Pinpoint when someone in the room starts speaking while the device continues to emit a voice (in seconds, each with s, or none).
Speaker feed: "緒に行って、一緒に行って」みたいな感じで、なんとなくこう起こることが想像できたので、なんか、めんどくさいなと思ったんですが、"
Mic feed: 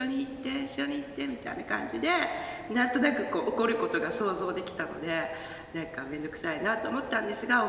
none